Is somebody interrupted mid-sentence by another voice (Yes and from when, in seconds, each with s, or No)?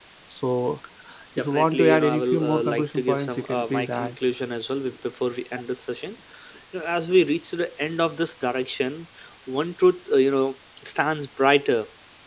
Yes, from 1.4 s